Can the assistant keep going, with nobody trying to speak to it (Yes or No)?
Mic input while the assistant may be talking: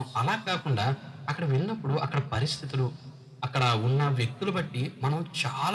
Yes